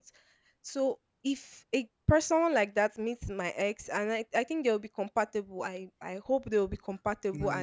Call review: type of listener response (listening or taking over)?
listening